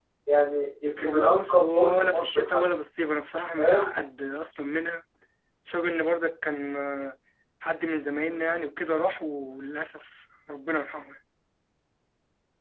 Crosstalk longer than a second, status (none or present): present